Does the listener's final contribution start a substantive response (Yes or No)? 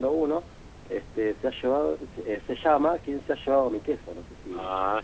Yes